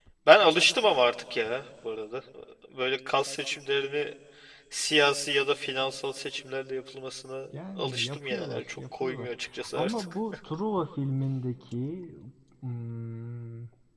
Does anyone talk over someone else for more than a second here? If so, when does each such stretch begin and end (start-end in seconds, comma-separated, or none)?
7.8-9.3